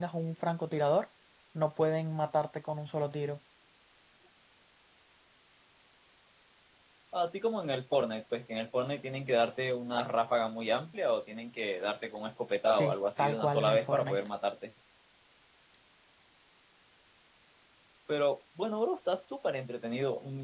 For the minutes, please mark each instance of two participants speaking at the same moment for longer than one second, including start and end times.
12.7-14.2

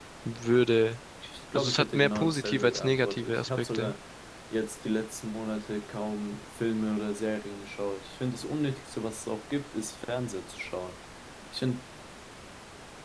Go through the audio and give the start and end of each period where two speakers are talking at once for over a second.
1.6-3.9

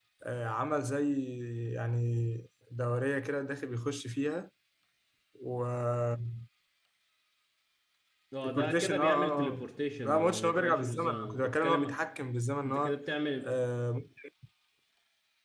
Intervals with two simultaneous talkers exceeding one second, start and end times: 8.4-12.0

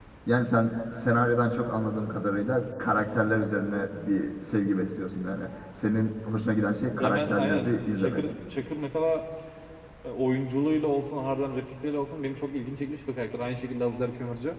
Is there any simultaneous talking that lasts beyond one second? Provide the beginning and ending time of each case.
7.0-8.3

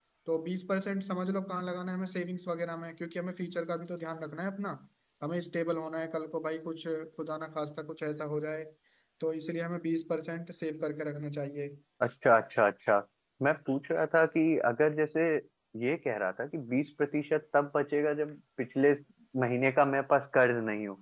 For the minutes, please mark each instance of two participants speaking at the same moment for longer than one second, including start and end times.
none

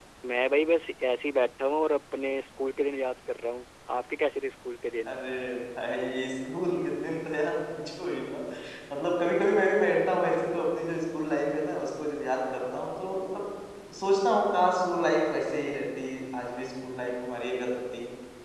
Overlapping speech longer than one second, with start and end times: none

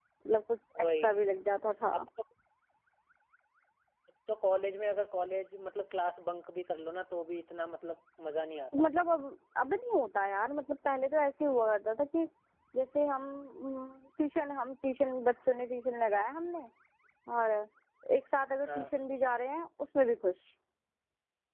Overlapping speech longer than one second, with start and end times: none

